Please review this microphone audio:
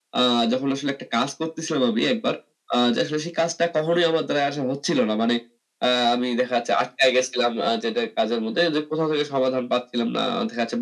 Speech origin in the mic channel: echo only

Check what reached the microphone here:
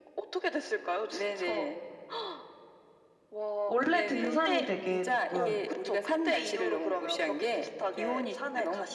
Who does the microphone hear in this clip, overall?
both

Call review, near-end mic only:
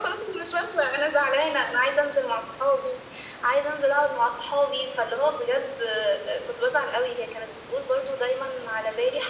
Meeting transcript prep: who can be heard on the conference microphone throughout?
echo only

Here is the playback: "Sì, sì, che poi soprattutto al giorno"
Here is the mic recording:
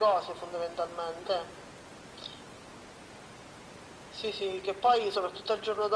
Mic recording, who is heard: echo only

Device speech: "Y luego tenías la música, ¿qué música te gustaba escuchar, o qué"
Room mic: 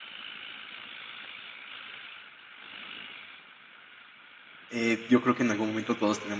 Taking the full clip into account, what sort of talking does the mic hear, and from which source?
user only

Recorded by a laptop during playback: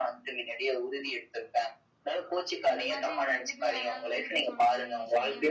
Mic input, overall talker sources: both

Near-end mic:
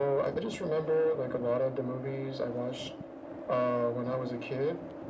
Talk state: echo only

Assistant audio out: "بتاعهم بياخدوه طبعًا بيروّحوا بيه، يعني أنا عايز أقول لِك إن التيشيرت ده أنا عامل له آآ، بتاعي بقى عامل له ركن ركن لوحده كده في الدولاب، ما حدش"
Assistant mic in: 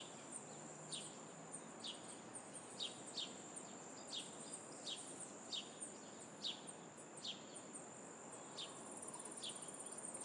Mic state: neither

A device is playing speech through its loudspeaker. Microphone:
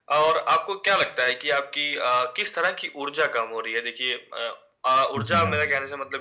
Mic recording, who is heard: both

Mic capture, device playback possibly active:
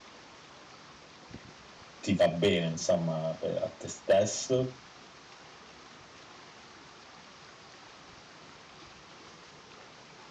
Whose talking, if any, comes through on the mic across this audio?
user only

